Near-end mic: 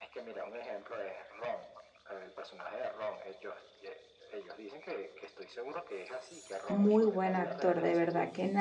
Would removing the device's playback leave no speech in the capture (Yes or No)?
No